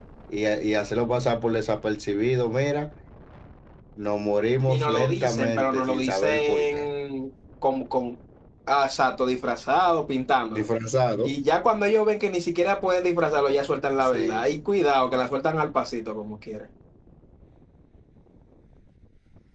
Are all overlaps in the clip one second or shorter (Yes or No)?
No